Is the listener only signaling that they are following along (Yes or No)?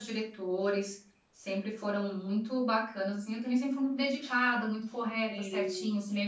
Yes